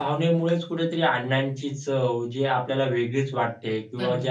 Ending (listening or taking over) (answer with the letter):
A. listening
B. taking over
A